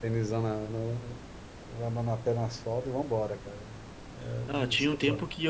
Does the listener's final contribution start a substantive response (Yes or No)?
Yes